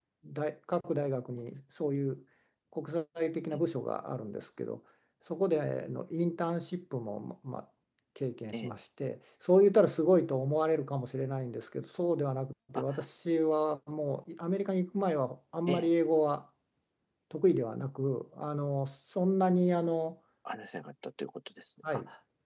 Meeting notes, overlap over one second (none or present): none